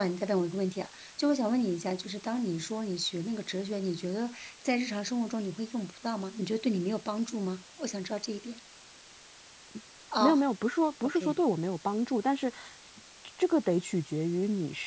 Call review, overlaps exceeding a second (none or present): none